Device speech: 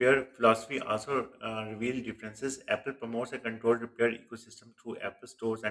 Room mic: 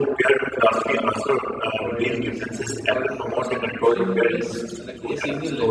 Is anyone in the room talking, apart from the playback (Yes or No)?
Yes